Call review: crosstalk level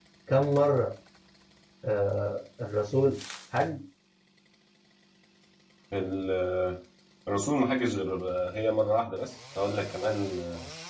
none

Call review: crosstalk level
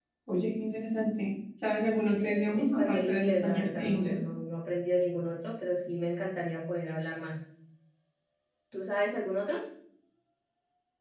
present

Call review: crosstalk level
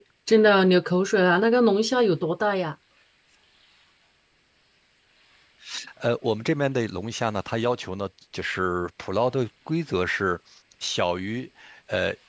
none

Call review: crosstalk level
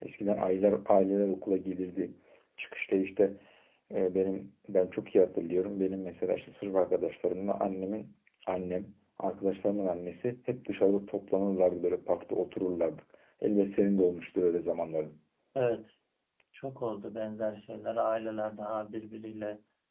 none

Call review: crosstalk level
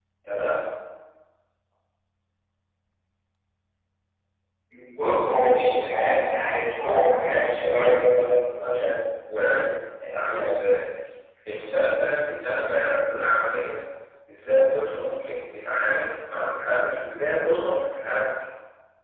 present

